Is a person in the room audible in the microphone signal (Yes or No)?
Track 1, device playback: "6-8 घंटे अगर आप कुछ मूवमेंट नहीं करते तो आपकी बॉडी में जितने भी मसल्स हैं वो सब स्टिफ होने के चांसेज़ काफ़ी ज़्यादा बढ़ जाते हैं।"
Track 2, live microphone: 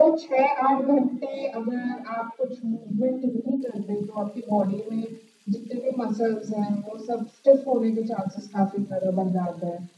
No